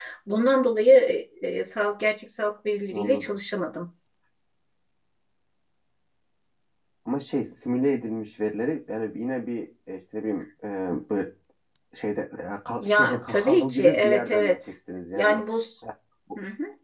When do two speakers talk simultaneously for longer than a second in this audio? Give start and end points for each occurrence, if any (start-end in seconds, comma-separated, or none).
12.8-14.6